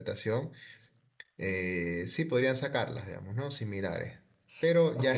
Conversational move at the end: taking over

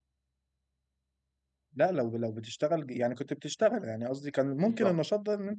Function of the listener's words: listening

